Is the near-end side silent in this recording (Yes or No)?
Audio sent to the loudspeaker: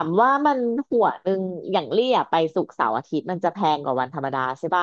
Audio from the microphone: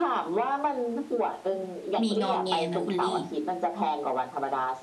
No